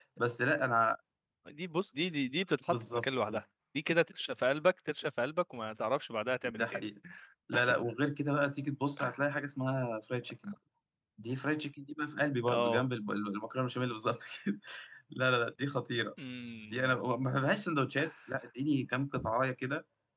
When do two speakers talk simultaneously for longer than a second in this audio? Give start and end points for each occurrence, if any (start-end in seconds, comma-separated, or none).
none